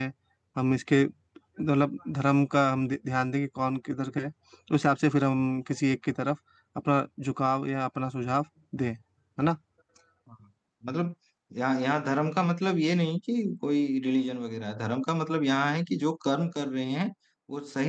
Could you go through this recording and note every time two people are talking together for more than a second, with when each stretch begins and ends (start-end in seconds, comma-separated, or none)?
none